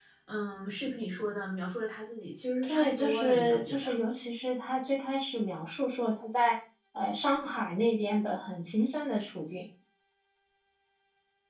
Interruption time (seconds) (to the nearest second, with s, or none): 3 s